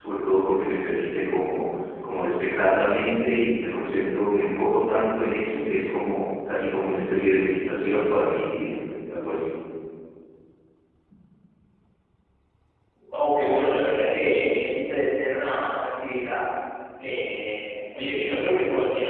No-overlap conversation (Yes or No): Yes